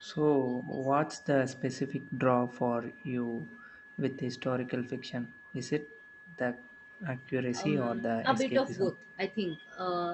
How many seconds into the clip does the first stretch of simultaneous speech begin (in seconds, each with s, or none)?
7.6 s